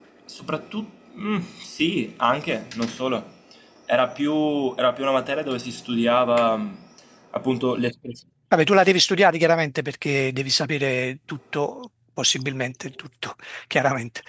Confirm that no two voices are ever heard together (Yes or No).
Yes